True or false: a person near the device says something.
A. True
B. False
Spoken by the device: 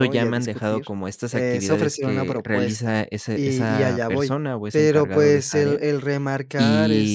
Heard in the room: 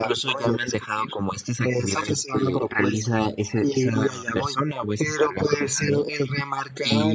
B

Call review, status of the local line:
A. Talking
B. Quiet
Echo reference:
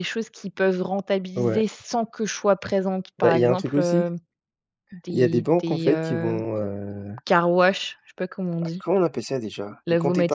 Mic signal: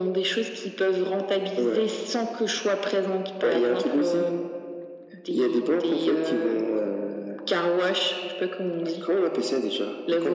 B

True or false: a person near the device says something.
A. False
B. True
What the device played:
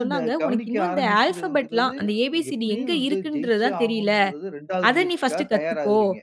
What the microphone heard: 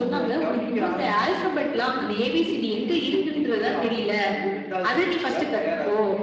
A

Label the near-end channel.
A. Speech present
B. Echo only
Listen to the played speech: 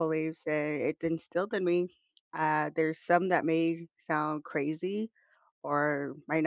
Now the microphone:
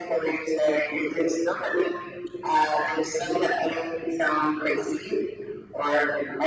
B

